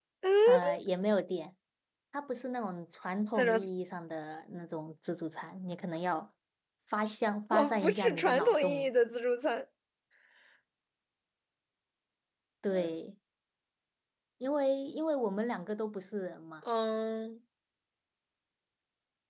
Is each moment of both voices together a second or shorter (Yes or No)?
No